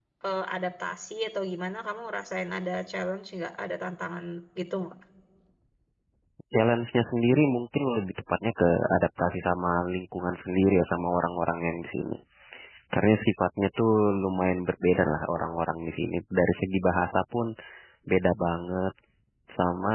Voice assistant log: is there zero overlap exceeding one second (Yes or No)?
Yes